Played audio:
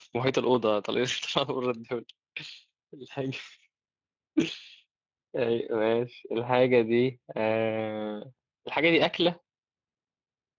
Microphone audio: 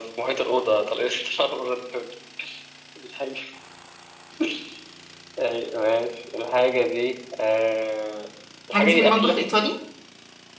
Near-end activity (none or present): present